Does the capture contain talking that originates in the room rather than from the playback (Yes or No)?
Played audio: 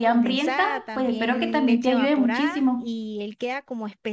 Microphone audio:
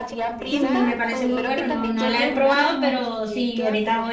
Yes